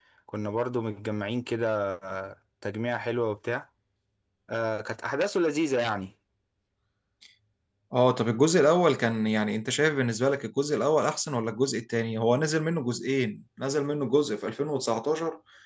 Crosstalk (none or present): none